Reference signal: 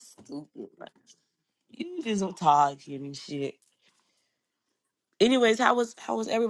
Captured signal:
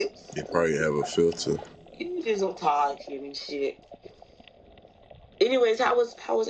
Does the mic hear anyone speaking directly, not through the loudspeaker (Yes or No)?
Yes